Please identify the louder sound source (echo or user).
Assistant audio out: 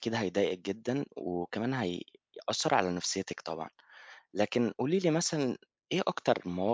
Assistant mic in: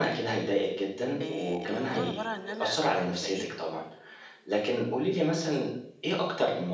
echo